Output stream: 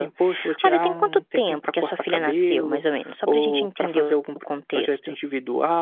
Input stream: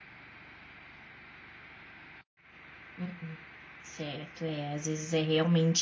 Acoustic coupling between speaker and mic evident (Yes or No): No